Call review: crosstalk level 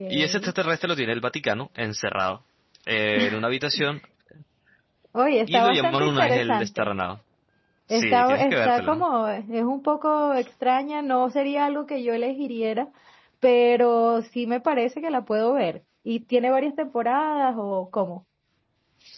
present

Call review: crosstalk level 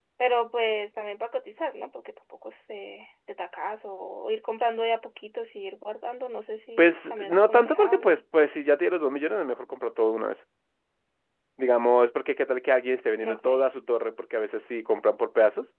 present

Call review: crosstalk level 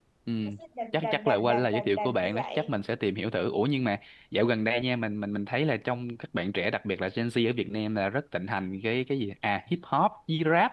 present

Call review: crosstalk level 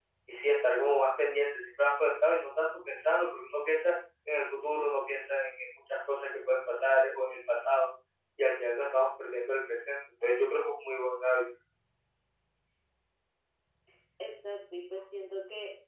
none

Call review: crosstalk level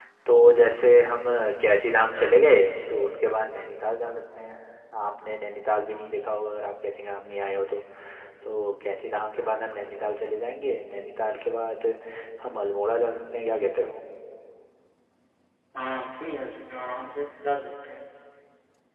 none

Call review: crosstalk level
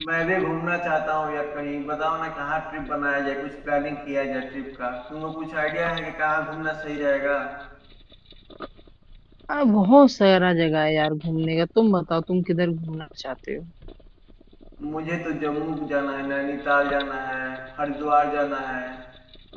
none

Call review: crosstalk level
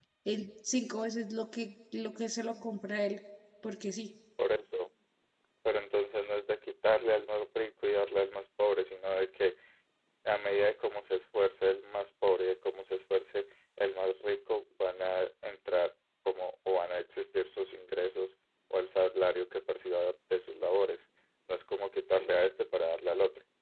none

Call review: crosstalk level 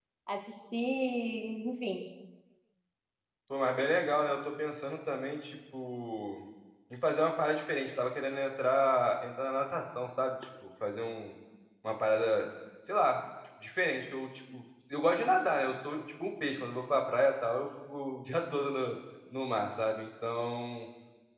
none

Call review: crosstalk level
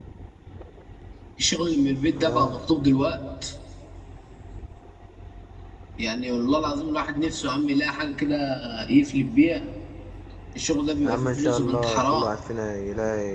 present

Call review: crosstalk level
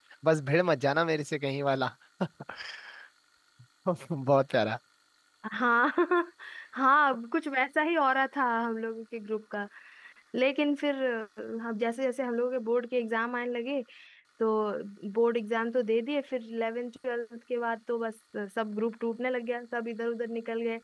none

